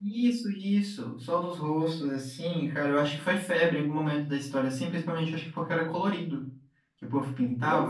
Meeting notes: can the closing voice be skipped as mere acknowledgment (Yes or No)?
No